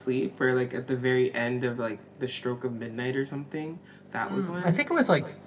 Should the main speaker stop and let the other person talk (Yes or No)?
Yes